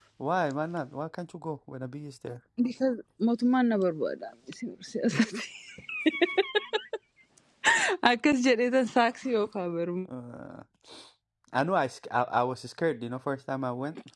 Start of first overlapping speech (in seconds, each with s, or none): none